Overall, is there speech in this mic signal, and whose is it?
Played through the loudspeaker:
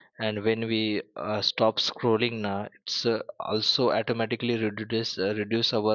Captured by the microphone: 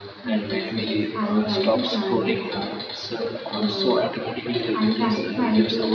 both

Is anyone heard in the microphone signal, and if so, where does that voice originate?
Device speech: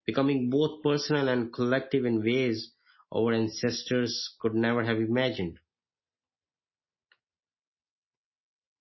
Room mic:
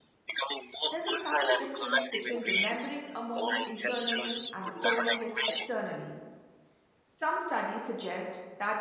both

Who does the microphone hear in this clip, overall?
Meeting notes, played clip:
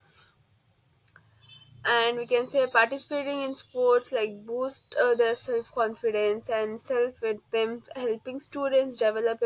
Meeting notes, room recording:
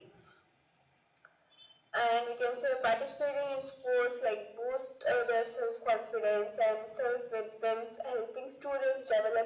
echo only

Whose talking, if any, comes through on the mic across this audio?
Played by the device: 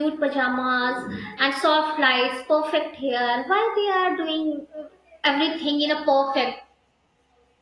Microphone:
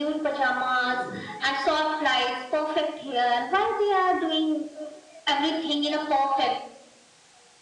echo only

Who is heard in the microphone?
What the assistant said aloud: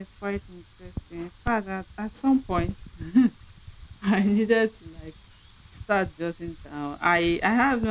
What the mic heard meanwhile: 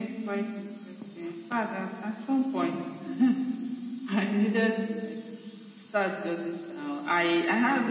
echo only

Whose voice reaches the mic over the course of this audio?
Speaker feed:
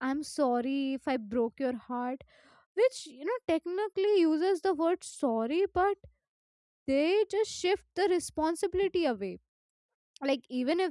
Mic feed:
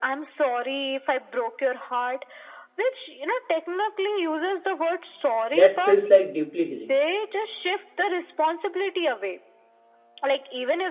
both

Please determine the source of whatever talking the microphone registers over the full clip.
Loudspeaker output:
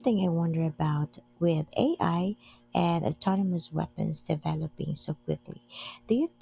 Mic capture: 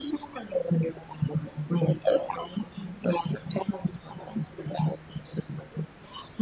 echo only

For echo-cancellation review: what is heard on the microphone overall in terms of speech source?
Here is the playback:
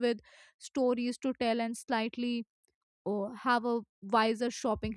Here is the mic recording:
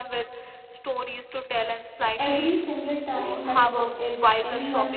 both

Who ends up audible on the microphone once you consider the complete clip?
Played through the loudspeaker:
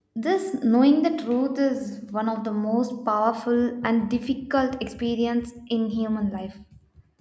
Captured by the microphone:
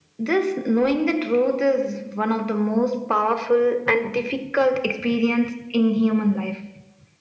echo only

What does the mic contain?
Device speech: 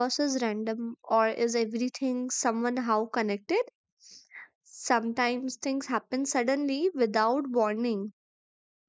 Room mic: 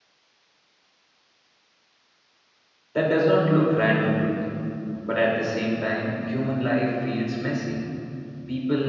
user only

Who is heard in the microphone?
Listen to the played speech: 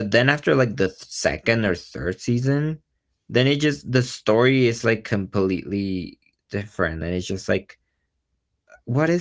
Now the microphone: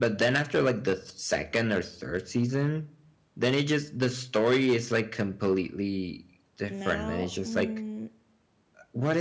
both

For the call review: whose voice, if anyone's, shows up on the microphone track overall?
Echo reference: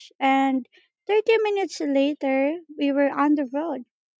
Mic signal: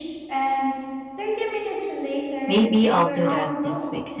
both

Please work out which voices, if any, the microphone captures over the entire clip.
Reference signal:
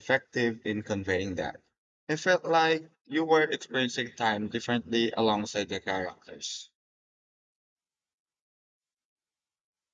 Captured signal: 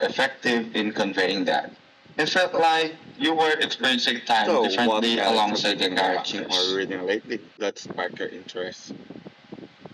both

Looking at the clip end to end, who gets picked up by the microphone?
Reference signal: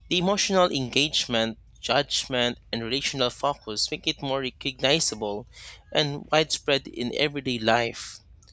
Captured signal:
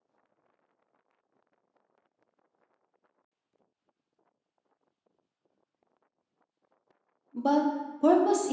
user only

